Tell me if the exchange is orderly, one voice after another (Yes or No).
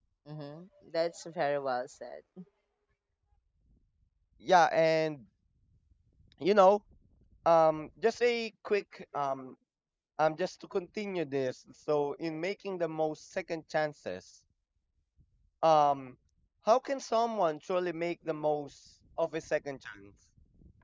Yes